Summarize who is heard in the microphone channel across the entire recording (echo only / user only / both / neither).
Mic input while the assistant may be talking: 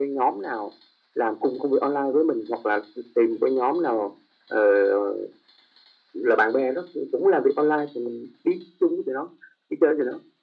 echo only